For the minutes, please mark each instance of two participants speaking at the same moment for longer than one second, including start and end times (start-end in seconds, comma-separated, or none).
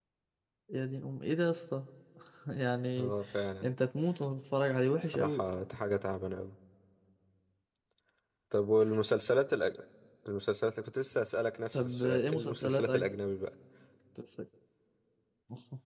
11.7-13.1